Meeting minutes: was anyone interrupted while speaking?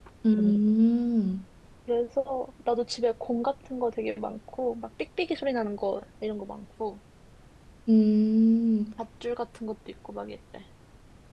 No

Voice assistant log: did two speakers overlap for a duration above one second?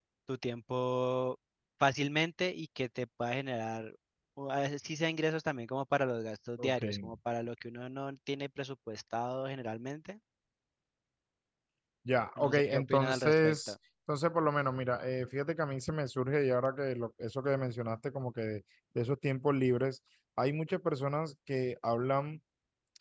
Yes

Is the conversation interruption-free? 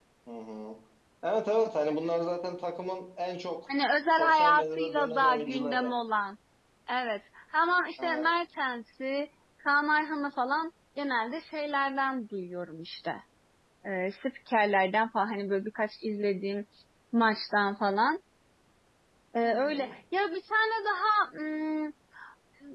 No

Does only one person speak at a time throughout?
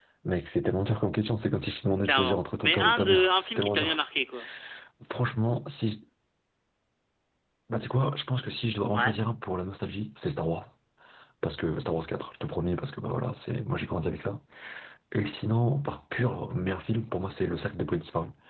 No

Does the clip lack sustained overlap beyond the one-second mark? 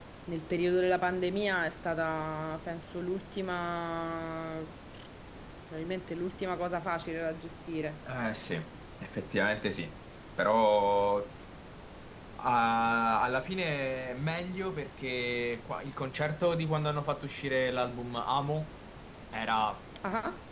Yes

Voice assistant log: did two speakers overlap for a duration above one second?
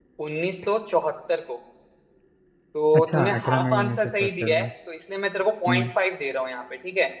Yes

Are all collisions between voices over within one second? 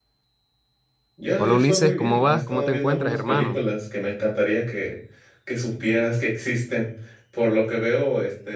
No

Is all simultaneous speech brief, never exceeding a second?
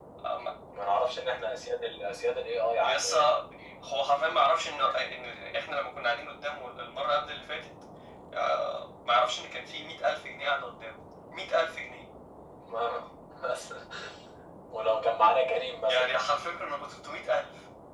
Yes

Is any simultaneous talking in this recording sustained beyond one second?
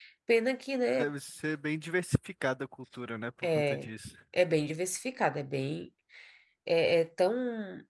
No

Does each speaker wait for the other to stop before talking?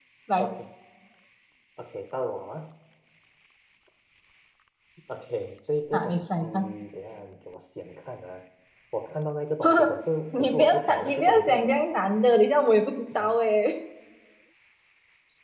No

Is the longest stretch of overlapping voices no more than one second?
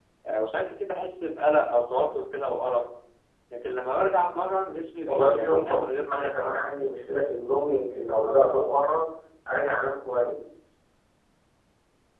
No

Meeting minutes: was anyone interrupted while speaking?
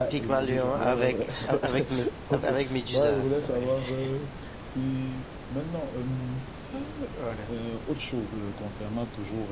Yes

